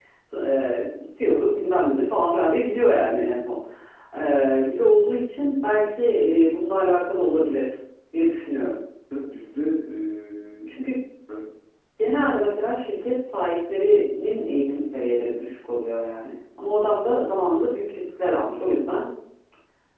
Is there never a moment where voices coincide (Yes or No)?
Yes